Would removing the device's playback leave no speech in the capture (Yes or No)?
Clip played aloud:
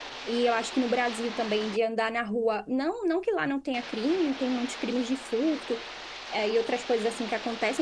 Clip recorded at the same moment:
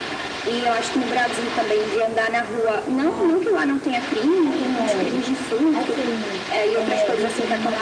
No